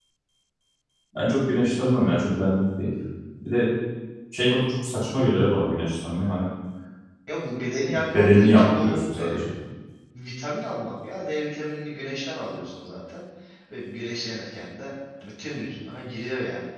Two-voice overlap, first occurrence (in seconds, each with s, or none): 8.1 s